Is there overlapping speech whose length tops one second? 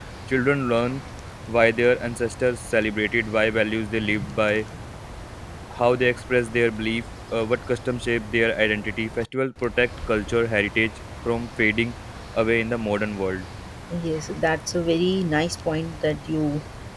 No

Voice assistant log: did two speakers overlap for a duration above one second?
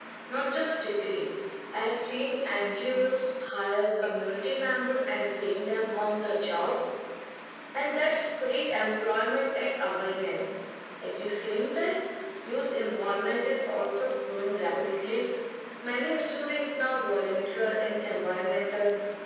No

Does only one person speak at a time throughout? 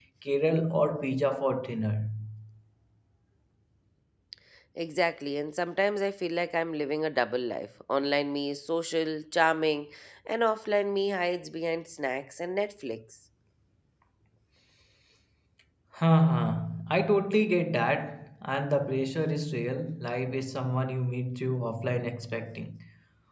Yes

